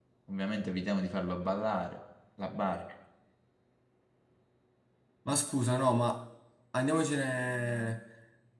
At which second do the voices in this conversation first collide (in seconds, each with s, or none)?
none